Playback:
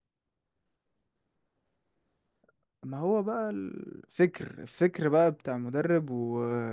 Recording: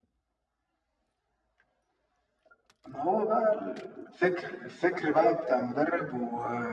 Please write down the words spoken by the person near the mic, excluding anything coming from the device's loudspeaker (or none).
none